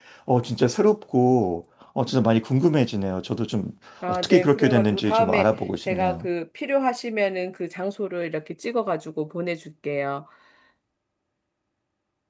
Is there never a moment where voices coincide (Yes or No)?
No